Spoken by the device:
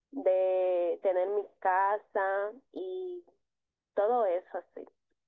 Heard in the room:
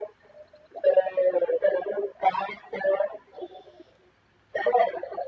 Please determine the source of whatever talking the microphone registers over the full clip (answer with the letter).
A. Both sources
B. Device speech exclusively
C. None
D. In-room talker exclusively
B